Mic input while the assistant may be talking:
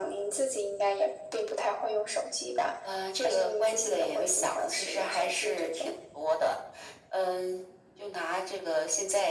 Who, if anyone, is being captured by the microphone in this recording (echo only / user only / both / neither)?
echo only